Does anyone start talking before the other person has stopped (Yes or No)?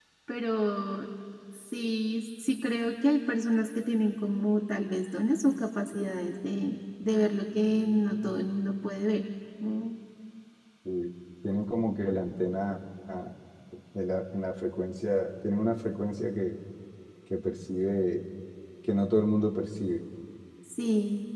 No